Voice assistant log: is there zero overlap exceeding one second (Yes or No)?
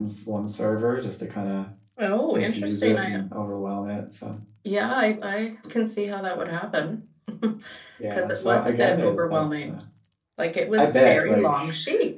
No